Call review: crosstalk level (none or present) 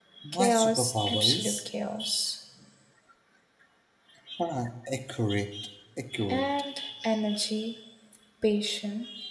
present